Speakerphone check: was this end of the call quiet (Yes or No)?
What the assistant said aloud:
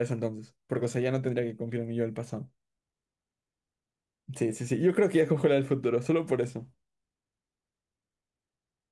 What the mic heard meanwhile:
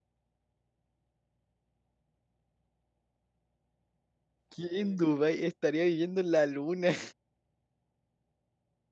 No